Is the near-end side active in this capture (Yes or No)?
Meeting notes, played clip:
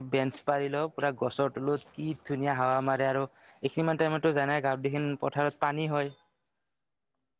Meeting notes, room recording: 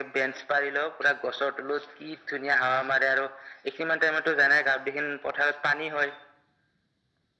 No